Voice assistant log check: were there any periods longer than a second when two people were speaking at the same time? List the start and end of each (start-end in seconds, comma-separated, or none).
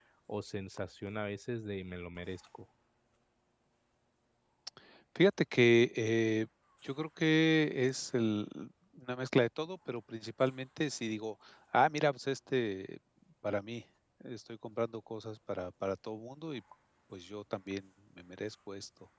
none